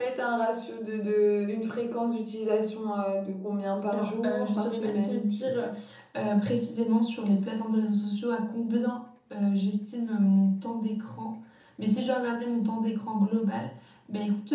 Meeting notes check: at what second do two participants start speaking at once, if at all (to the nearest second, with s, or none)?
4 s